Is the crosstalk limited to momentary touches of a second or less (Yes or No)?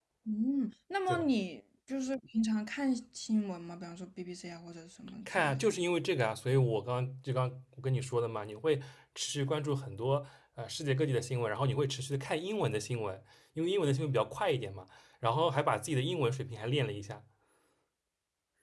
Yes